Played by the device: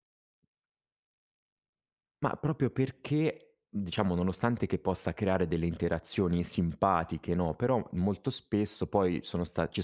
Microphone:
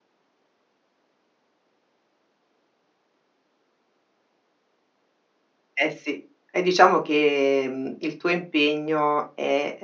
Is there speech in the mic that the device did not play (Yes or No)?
Yes